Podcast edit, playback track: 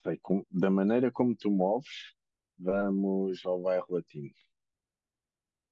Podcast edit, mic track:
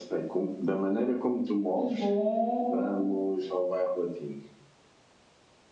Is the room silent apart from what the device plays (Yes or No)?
No